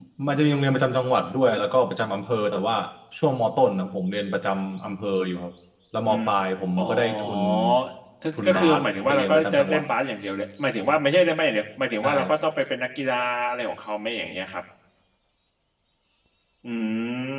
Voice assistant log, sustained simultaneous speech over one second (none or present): present